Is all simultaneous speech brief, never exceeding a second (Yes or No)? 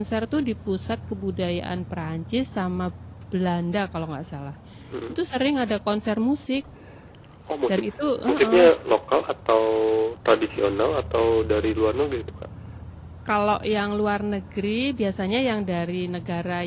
Yes